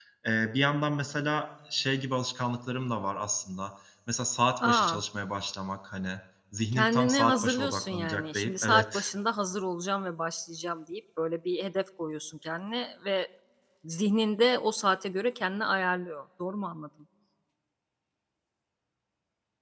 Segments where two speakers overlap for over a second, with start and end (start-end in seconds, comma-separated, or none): 6.7-9.1